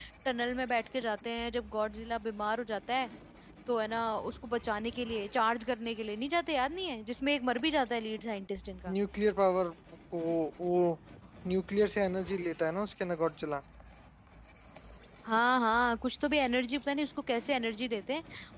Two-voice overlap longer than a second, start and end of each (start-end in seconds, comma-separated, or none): none